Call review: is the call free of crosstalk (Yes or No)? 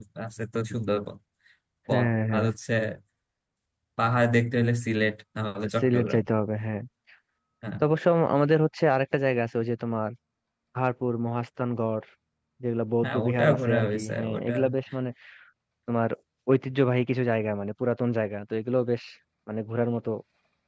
No